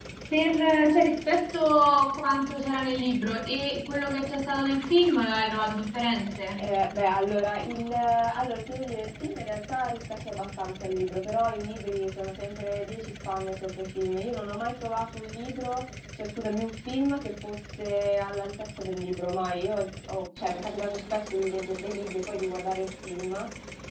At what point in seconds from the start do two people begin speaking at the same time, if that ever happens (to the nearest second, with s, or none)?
none